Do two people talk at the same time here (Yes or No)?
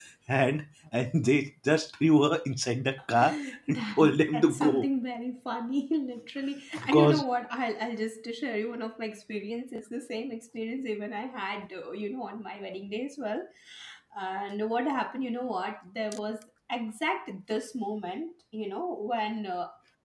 Yes